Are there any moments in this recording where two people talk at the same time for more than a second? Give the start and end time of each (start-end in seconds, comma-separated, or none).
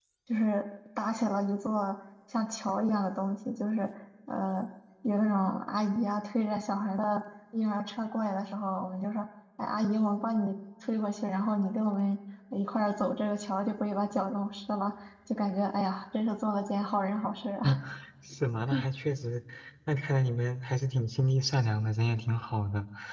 none